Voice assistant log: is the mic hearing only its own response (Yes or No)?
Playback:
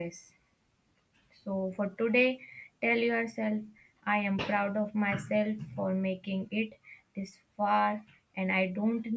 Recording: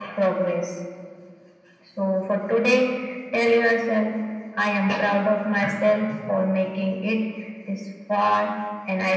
Yes